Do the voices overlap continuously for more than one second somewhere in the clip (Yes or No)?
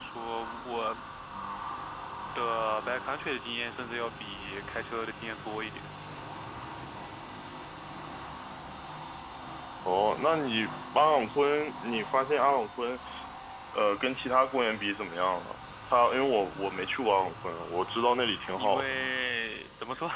No